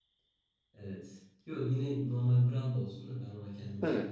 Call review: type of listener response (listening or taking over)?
listening